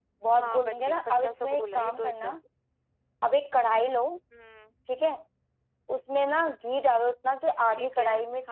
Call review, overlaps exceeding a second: present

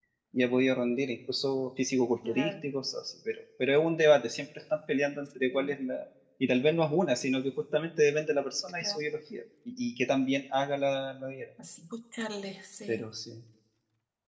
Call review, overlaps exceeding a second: none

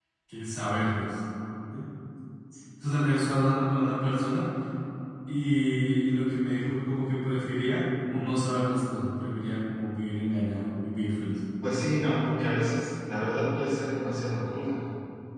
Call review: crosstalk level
none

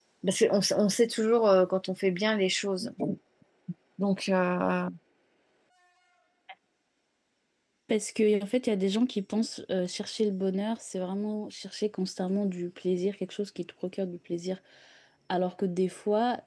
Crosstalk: none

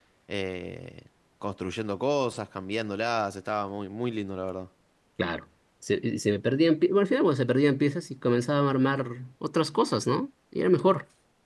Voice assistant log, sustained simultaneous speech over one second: none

